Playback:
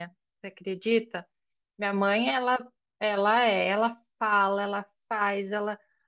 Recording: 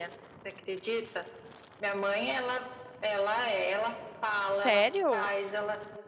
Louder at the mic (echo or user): user